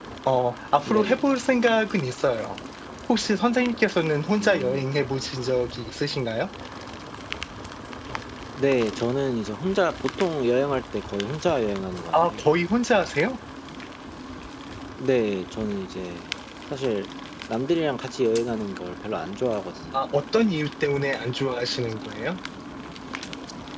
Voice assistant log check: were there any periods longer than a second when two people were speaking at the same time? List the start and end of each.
none

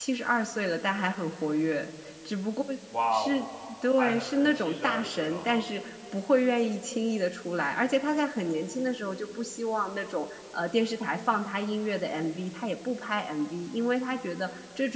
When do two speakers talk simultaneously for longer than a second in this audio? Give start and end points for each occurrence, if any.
4.0-5.7

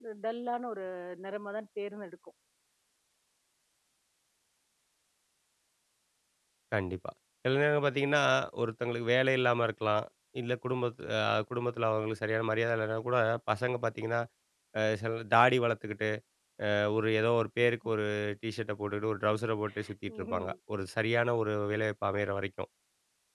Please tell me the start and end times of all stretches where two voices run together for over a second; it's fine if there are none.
none

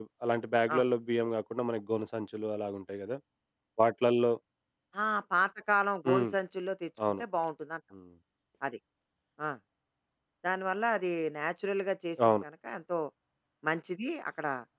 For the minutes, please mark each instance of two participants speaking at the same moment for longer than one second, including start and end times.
none

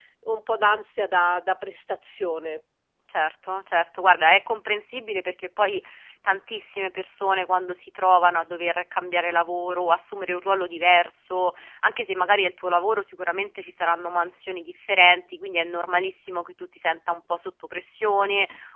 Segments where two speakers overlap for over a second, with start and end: none

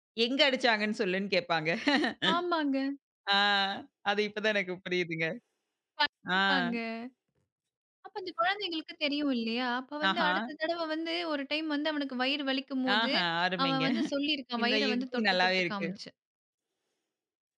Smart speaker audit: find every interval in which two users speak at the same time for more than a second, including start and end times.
14.6-15.9

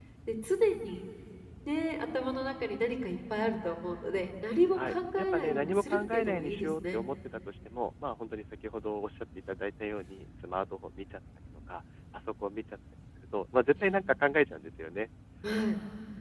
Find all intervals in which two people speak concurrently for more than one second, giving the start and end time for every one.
4.8-7.0

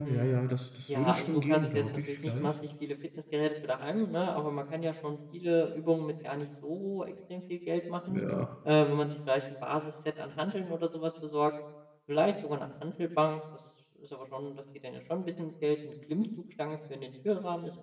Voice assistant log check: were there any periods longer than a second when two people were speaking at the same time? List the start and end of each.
0.9-2.5

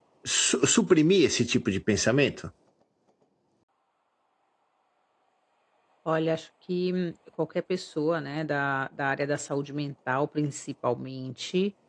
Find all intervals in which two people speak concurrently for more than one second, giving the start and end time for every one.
none

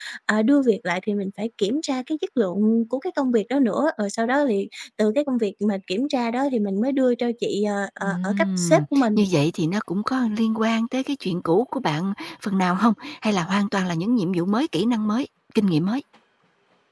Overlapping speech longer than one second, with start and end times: 8.0-9.2

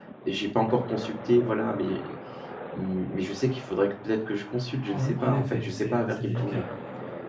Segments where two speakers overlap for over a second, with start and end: 4.8-6.6

